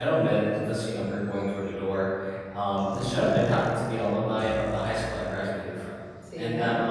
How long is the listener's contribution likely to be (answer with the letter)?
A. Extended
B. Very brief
B